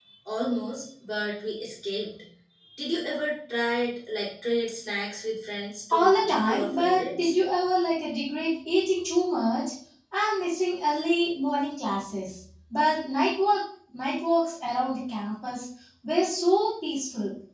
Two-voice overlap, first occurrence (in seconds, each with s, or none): 5.9 s